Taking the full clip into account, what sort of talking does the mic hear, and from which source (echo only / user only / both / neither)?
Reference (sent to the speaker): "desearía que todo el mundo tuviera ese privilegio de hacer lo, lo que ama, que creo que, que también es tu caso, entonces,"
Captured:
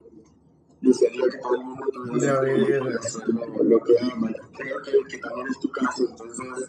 both